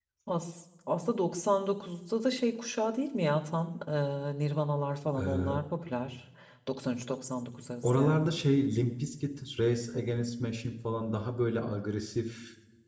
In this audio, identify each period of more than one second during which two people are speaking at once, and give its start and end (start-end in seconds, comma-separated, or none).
none